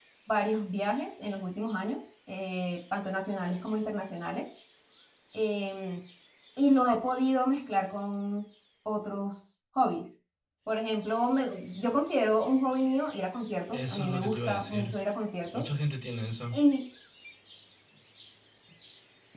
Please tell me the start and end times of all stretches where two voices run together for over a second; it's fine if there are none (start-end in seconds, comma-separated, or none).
13.7-14.9